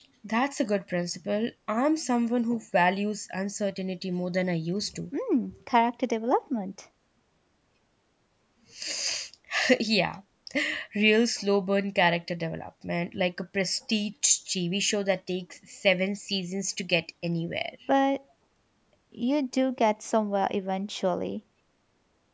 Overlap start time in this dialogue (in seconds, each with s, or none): none